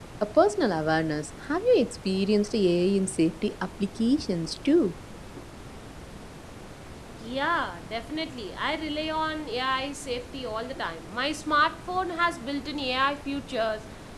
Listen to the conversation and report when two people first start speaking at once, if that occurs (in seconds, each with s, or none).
none